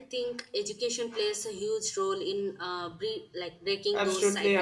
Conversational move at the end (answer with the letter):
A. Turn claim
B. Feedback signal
A